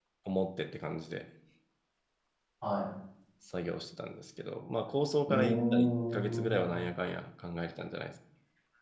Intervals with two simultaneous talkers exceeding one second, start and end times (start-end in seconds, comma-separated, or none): 5.3-6.7